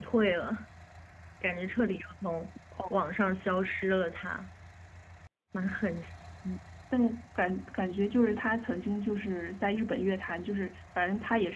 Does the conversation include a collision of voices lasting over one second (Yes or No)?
No